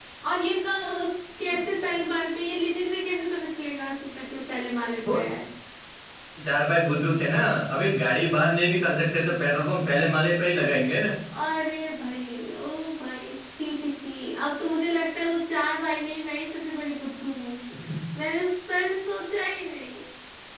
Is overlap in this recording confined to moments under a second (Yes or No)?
Yes